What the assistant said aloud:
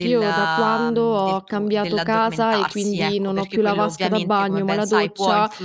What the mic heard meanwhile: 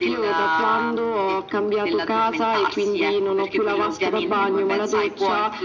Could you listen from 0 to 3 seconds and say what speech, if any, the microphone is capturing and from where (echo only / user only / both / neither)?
echo only